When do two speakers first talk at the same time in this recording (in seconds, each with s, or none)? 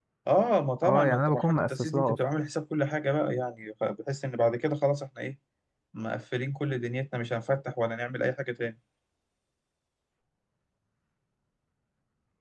0.8 s